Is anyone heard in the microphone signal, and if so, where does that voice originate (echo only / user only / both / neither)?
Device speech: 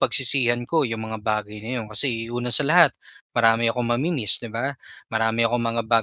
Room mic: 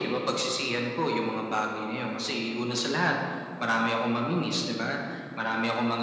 echo only